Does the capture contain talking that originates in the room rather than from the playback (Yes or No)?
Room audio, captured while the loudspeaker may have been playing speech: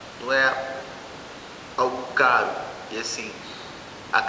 No